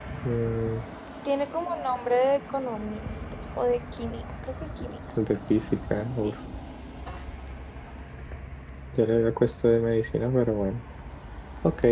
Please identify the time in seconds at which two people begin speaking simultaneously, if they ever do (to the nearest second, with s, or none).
none